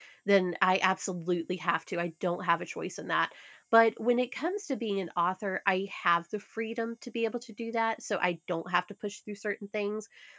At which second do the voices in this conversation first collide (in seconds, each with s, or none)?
none